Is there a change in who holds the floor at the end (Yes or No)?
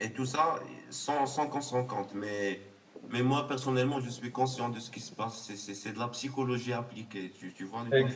Yes